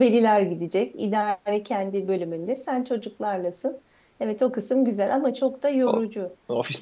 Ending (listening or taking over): taking over